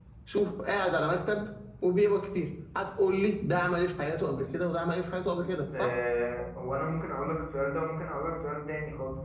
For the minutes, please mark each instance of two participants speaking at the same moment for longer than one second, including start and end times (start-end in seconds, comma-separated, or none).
none